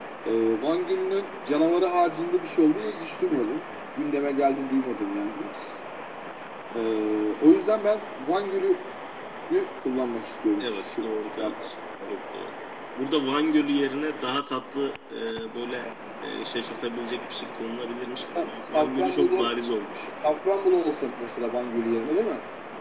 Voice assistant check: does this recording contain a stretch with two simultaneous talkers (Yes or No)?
Yes